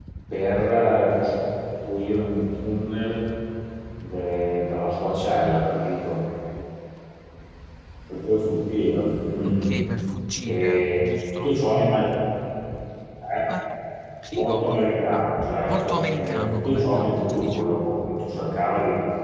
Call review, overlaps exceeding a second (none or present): present